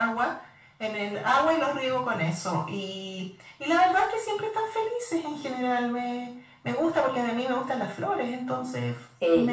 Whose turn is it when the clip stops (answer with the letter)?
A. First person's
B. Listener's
B